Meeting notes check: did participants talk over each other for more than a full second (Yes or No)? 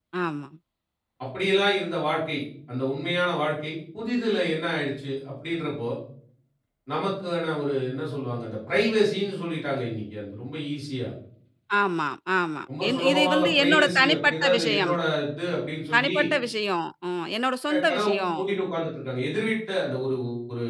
Yes